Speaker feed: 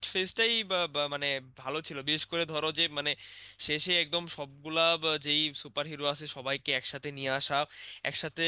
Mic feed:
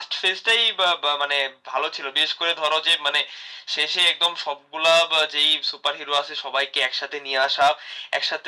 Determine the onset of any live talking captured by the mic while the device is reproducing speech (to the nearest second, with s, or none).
none